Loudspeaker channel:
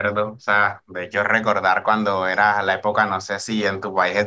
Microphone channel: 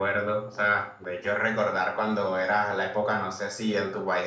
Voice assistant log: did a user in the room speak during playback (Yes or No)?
No